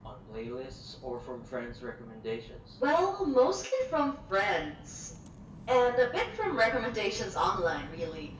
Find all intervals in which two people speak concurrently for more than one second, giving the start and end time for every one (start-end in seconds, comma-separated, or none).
none